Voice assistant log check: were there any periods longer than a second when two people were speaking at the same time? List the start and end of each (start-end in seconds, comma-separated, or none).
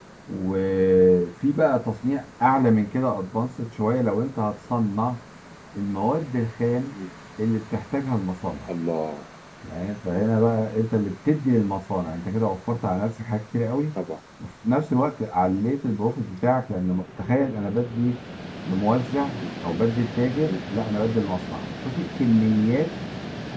none